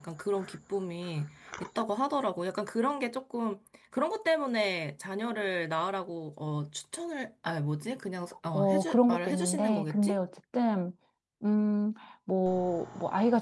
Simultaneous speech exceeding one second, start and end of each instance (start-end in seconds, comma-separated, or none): 8.5-10.2